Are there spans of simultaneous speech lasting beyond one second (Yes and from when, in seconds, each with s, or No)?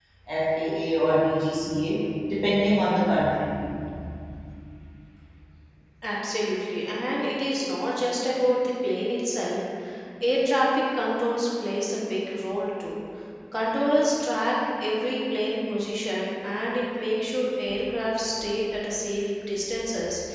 No